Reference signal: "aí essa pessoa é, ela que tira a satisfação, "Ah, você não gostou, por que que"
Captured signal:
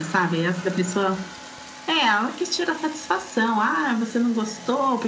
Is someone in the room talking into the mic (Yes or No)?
No